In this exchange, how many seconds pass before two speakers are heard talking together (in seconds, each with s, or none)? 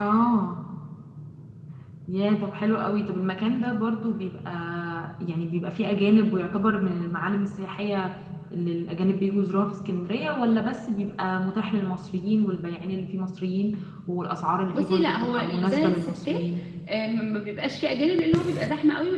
14.7 s